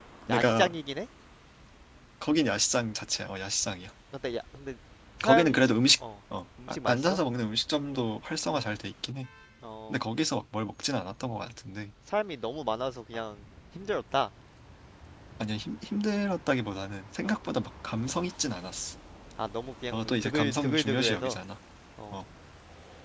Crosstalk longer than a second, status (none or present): present